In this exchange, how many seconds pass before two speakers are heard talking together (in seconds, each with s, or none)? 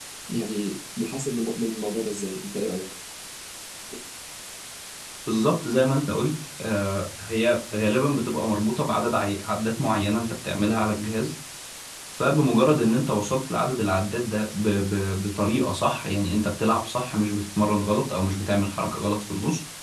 none